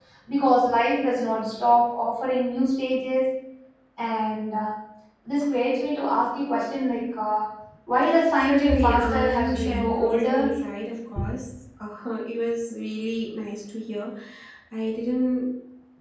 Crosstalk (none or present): present